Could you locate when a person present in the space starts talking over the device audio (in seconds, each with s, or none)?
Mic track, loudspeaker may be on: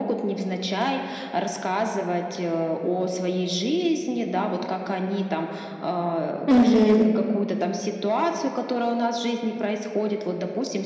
6.5 s